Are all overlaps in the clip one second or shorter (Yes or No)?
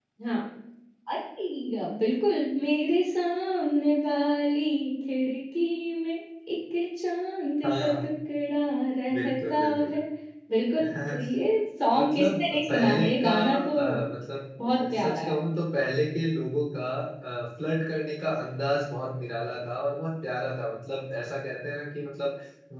No